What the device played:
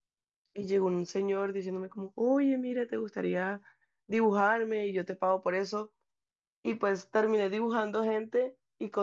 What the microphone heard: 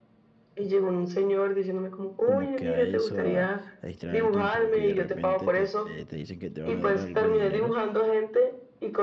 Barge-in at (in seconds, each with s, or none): 2.2 s